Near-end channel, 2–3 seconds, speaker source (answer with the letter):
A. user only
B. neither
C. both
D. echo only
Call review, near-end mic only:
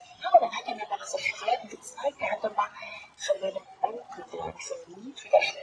D